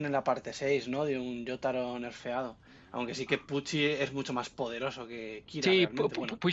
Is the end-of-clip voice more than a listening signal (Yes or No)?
Yes